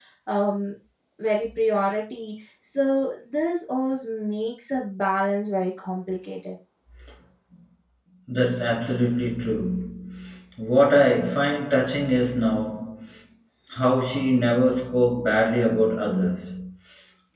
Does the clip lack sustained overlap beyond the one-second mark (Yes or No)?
Yes